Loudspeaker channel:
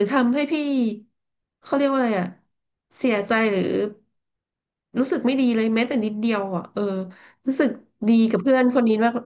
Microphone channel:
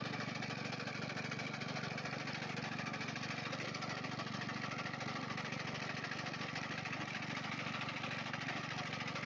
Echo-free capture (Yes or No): Yes